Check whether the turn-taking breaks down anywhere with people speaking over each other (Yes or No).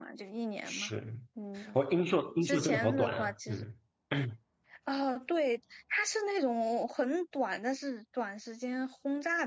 Yes